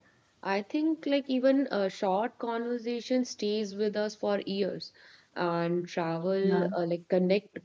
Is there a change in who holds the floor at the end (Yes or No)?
No